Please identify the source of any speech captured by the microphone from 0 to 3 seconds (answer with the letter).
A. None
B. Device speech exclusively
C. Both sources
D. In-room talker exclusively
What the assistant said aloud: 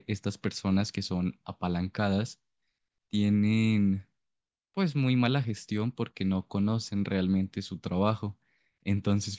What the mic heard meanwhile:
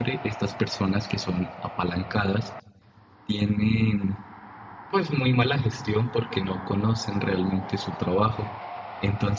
B